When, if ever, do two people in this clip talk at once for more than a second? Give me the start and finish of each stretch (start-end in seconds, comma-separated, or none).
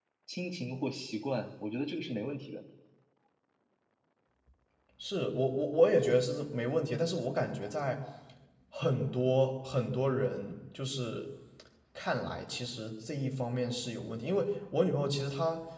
none